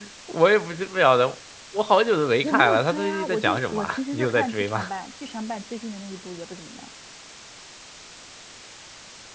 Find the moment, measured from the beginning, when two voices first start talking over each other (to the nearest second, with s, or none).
2 s